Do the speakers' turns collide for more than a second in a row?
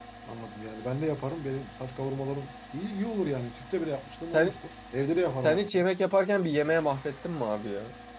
No

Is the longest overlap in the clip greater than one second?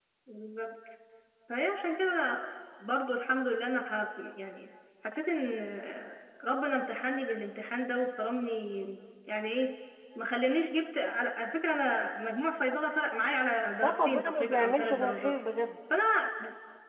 Yes, from 13.8 s

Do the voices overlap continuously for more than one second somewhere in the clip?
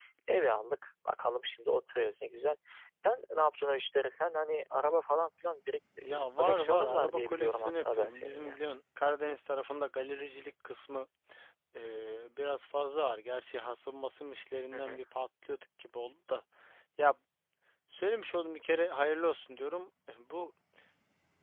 Yes, from 6.0 s

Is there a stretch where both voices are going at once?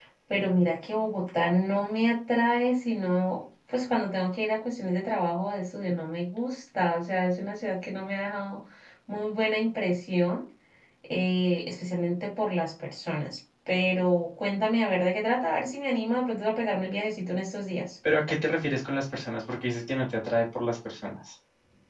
No

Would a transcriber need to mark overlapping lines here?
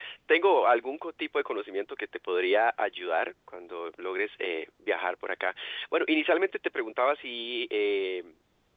No

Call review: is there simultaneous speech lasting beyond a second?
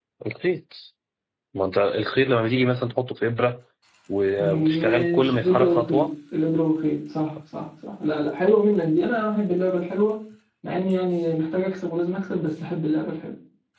Yes, from 4.4 s

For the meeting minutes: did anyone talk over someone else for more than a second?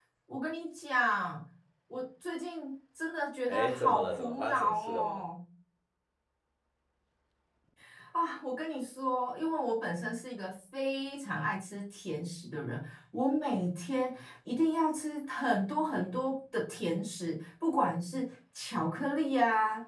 Yes, from 3.5 s

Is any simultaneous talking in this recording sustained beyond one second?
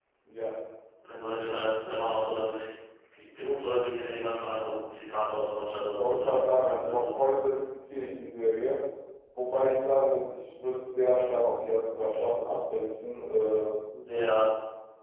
Yes, from 5.8 s

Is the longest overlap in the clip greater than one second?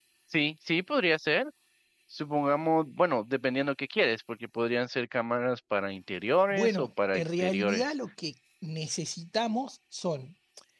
Yes, from 6.5 s

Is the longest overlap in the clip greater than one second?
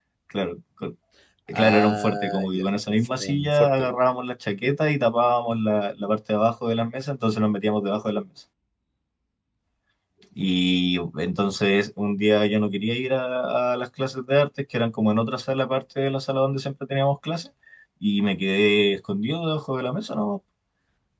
Yes, from 1.5 s

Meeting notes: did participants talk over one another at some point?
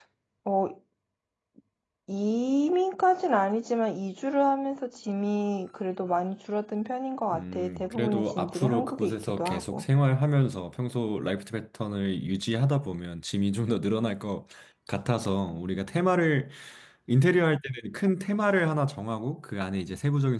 Yes, from 7.3 s

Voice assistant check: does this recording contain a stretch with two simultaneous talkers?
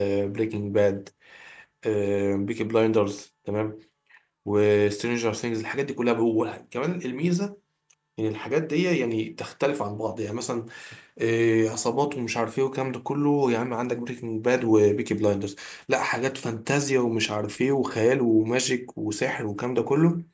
No

